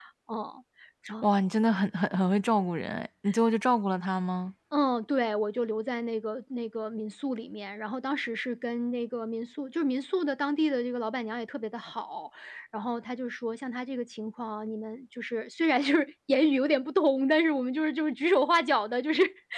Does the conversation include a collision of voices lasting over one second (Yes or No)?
No